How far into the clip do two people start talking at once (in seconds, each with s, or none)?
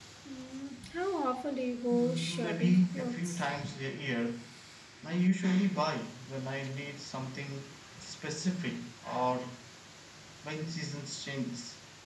1.9 s